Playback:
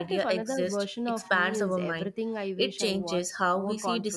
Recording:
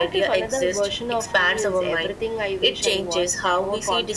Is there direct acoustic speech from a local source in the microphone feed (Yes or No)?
No